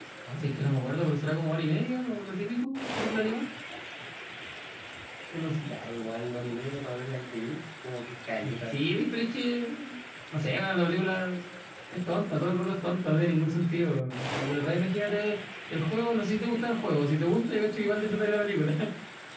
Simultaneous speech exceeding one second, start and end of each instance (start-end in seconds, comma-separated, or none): none